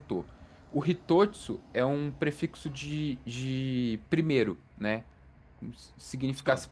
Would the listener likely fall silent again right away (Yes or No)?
Yes